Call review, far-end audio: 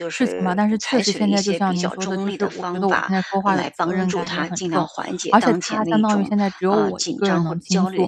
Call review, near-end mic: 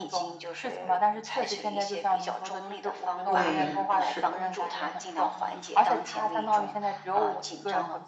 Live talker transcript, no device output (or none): 对，是的，